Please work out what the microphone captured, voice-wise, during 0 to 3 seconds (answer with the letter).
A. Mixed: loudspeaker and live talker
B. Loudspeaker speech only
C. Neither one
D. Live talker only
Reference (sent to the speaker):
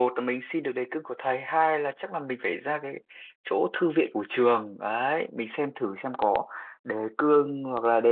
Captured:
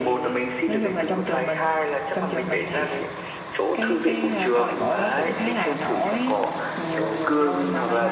A